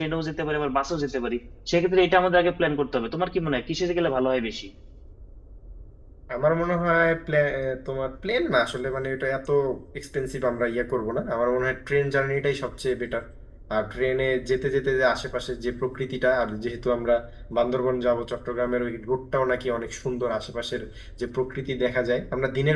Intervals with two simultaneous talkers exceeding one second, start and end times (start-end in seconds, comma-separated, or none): none